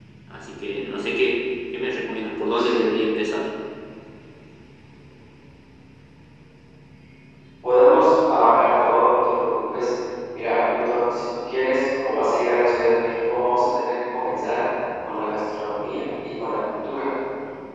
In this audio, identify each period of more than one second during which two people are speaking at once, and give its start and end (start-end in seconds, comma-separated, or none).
none